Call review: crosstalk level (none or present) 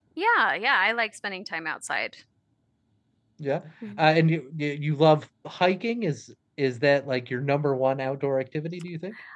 none